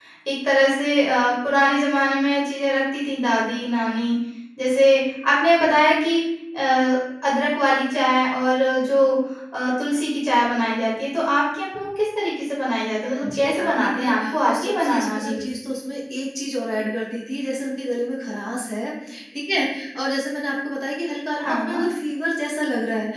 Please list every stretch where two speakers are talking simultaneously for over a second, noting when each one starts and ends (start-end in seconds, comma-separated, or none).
13.0-15.5